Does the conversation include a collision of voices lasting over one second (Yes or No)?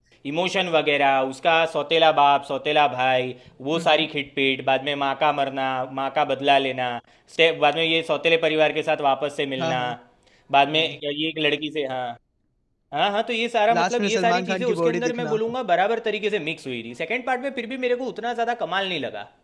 Yes